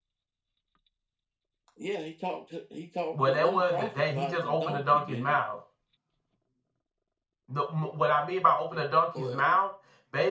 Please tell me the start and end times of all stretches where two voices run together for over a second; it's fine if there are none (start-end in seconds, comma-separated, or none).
3.1-5.4